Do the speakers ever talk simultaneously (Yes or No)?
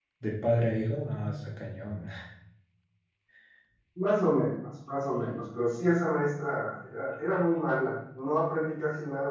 No